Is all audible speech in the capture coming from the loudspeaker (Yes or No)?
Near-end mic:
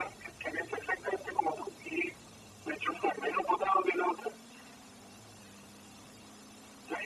Yes